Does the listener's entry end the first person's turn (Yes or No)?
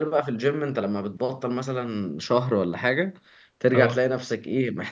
No